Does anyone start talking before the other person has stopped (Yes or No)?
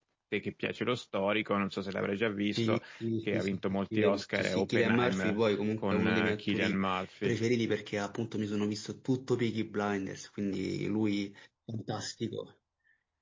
Yes